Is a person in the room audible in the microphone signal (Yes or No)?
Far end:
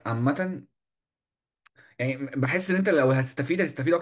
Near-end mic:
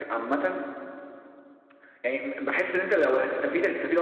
No